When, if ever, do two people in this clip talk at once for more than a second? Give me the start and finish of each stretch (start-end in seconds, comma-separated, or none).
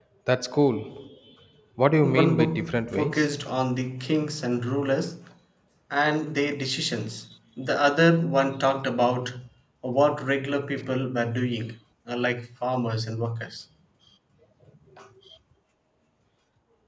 2.0-3.3